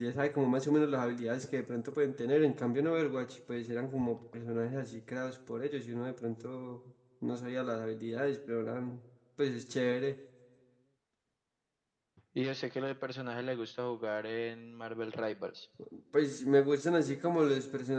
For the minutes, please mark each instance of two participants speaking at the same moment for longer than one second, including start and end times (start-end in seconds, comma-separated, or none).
none